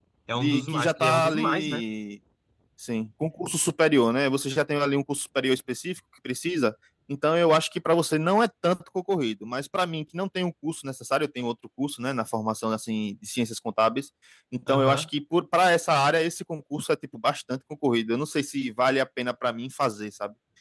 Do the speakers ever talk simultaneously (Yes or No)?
Yes